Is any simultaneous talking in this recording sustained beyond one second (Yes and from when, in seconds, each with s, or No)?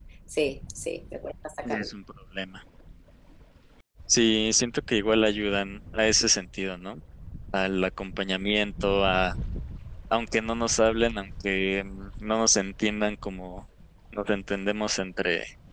No